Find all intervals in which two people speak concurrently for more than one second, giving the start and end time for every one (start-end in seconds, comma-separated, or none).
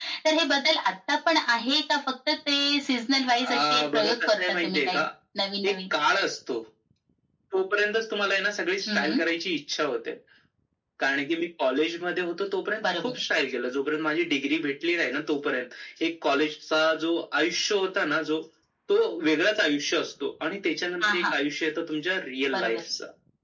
3.6-5.0